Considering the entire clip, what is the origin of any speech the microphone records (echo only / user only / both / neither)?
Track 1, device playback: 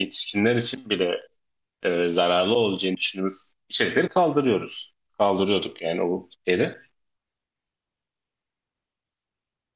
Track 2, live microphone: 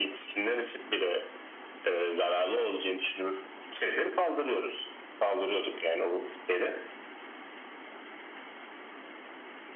echo only